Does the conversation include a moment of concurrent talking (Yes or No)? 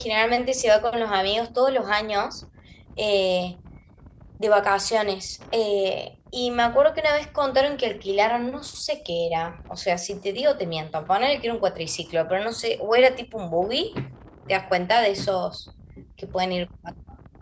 No